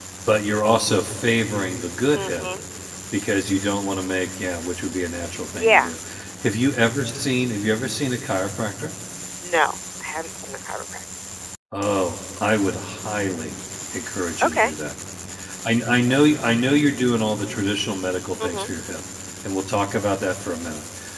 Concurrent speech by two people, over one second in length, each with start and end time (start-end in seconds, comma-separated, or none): none